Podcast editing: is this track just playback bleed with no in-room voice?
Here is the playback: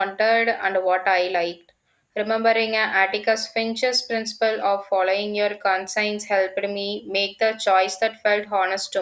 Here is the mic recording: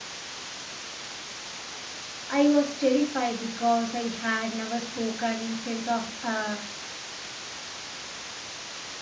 No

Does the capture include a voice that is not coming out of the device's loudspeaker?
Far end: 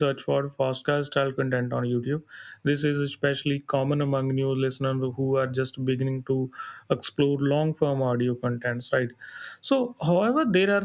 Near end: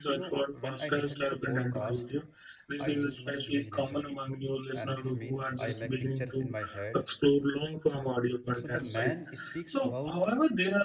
Yes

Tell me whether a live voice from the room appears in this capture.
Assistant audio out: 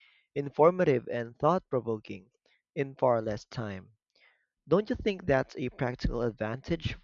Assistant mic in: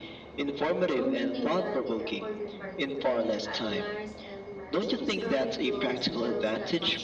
Yes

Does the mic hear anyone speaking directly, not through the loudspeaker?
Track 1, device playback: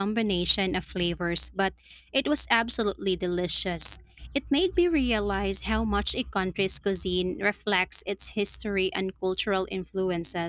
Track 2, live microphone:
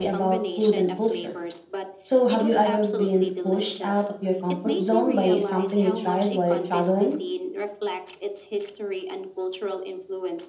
Yes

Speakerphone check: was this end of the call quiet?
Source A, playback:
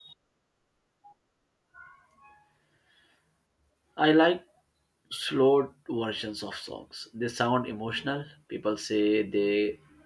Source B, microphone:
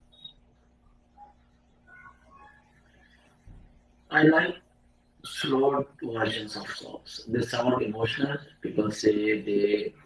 Yes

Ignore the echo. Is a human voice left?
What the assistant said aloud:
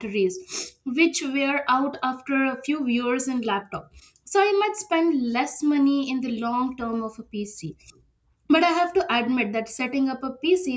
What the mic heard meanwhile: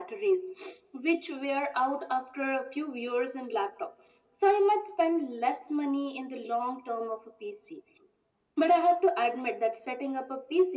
No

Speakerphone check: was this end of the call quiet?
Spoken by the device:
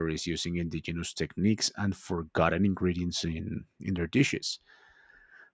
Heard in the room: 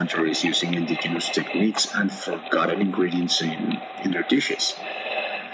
Yes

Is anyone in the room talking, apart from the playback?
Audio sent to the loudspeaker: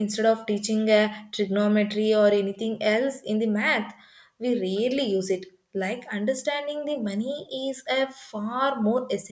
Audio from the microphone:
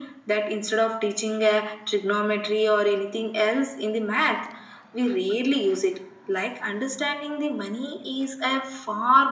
No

